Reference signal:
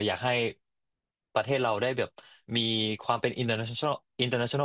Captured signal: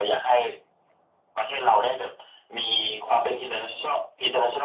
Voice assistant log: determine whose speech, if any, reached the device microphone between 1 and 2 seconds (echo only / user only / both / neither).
echo only